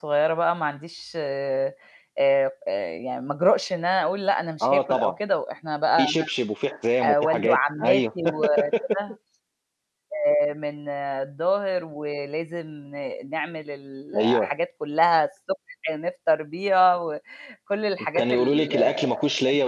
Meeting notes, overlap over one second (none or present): present